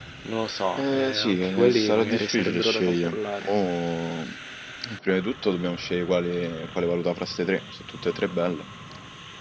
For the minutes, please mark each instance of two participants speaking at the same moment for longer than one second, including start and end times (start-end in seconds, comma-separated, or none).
0.8-3.5